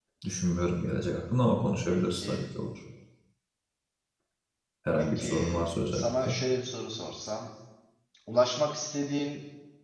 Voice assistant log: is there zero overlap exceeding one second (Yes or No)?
No